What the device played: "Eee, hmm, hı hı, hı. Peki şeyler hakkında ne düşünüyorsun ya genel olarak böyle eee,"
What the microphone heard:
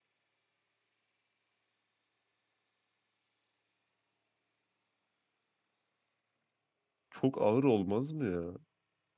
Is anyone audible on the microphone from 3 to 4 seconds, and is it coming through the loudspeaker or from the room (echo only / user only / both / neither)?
neither